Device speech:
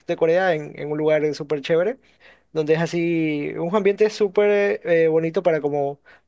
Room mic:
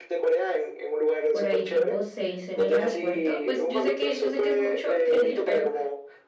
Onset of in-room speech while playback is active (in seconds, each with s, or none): 1.3 s